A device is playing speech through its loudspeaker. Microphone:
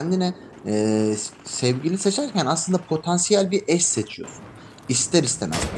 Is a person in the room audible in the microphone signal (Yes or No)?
Yes